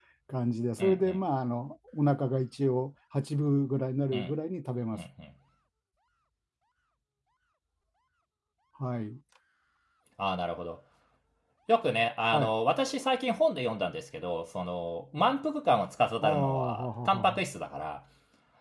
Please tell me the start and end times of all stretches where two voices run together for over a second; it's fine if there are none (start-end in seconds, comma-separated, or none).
16.2-17.4